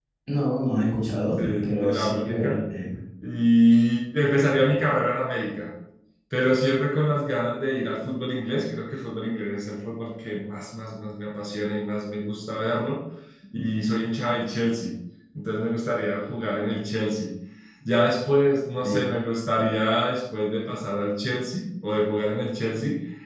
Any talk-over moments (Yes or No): Yes